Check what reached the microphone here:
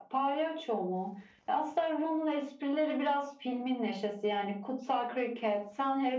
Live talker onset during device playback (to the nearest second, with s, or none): none